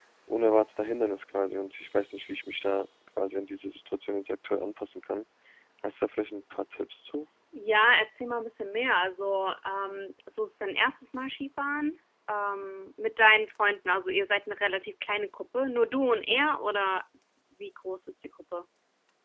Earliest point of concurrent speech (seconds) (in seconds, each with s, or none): none